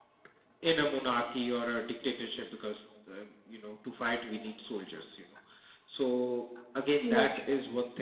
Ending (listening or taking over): listening